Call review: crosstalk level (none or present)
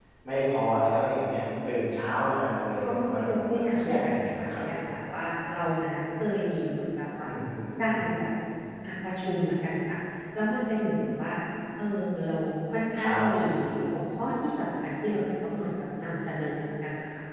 present